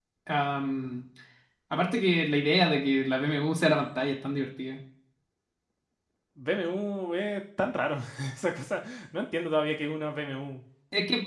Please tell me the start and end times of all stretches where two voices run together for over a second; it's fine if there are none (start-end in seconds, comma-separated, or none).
none